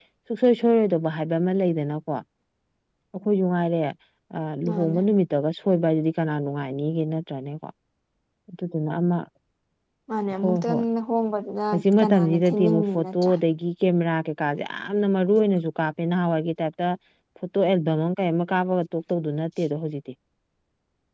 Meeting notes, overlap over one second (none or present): present